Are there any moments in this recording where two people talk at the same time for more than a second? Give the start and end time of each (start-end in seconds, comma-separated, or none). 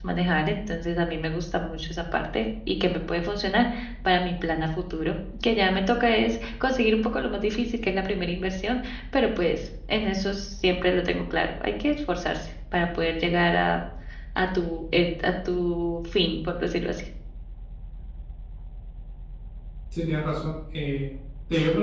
none